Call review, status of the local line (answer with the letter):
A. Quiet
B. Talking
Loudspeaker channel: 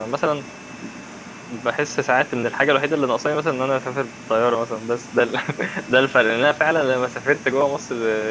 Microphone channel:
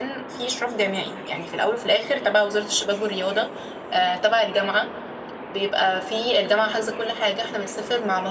B